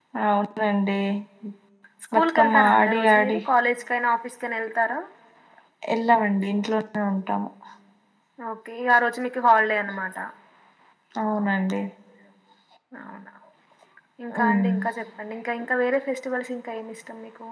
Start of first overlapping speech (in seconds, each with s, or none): 2.1 s